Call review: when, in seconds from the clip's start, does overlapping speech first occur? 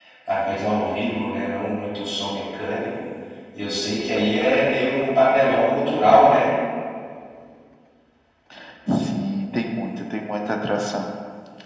none

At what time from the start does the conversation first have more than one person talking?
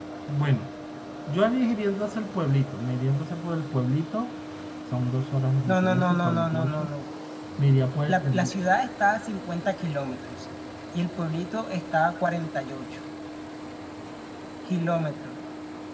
5.7 s

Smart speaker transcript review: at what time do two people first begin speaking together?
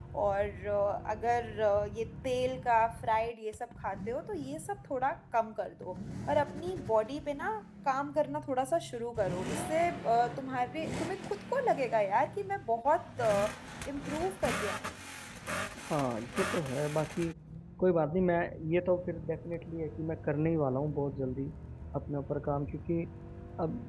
none

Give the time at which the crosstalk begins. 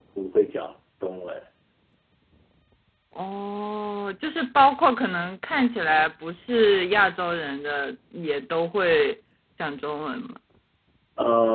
none

